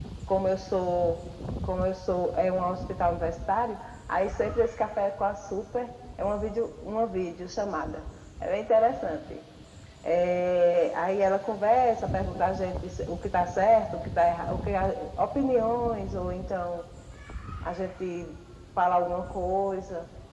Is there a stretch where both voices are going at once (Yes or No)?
No